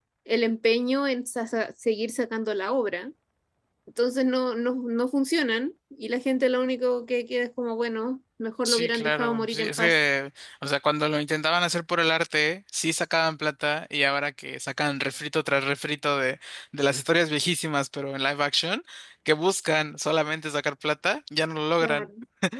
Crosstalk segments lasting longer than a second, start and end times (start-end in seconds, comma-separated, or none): 8.6-10.0